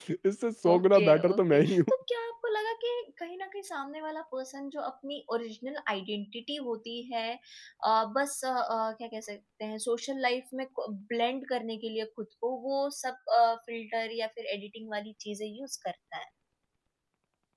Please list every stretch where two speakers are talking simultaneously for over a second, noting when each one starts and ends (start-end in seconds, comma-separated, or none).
0.7-1.9